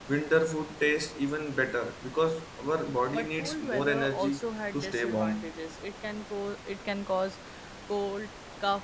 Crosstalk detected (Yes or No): Yes